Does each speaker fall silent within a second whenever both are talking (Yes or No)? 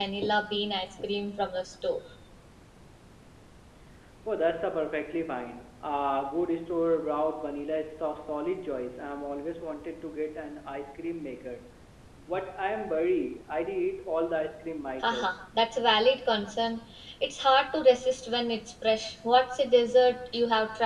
Yes